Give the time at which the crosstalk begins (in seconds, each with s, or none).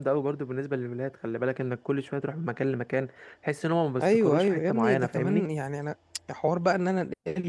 4.0 s